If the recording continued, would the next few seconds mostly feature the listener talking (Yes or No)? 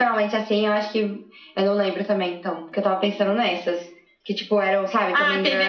Yes